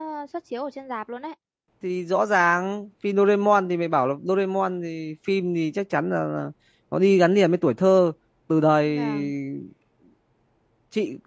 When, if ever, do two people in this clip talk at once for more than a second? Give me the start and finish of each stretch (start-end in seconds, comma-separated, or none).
none